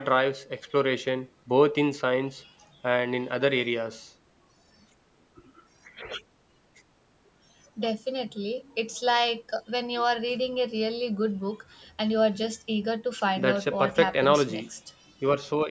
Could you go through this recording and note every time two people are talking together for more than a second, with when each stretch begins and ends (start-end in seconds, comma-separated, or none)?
13.4-14.6